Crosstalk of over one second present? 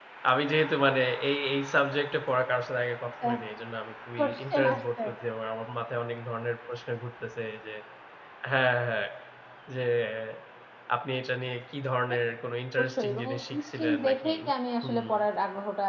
Yes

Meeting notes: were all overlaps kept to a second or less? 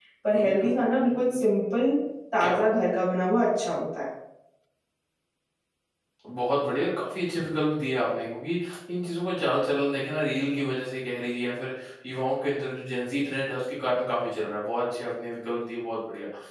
Yes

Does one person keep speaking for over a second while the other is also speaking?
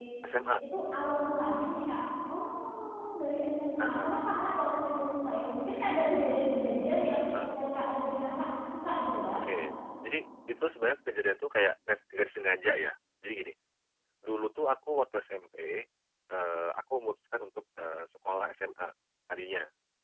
No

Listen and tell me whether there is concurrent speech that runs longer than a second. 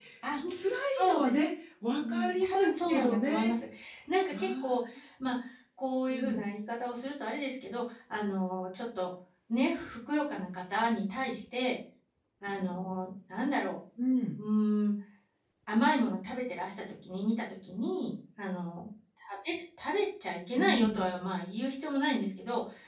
Yes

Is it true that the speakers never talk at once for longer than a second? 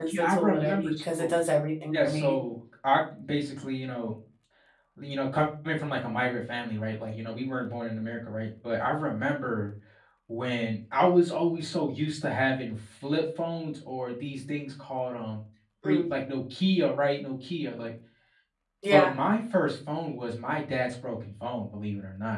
No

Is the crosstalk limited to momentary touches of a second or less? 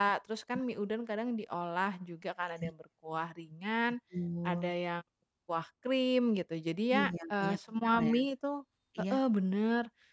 No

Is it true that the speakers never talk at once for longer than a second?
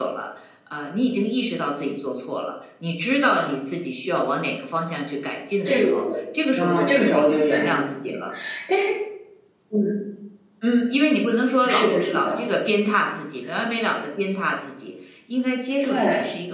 No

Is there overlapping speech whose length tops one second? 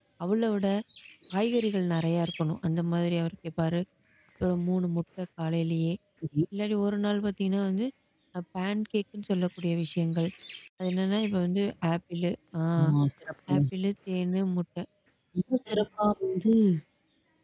No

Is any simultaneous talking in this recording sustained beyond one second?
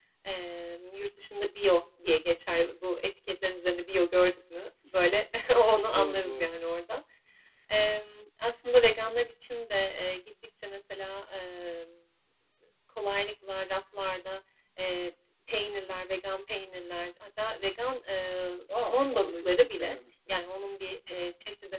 Yes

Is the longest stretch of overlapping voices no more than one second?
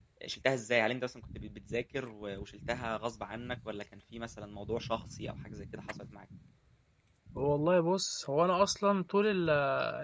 Yes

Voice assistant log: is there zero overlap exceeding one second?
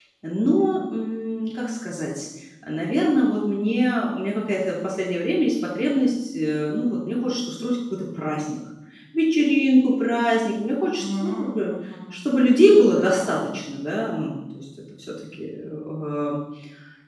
No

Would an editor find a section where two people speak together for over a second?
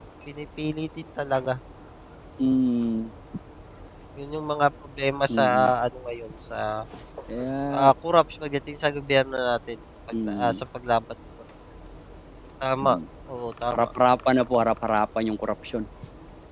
No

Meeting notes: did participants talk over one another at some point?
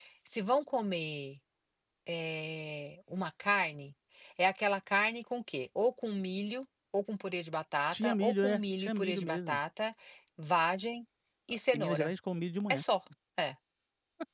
Yes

